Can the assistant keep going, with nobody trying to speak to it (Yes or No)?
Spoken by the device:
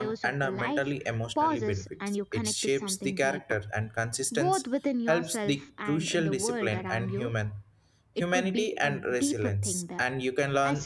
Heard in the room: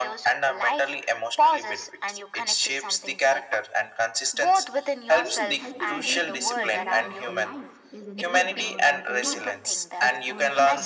No